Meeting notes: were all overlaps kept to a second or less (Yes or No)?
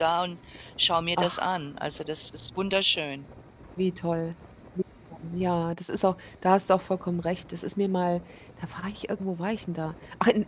Yes